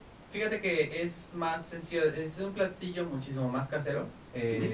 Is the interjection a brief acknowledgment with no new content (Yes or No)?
Yes